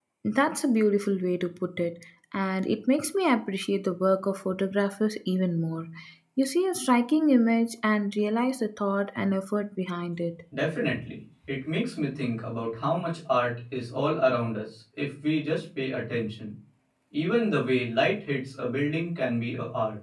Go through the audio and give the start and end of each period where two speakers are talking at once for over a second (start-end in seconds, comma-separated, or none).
none